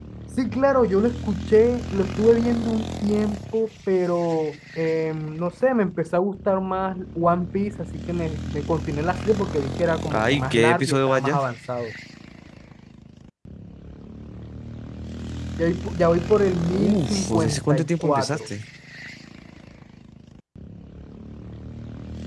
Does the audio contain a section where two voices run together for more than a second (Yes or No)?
Yes